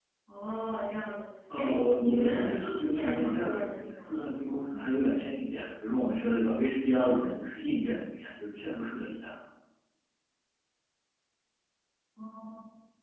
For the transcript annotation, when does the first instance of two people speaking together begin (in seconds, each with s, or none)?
1.5 s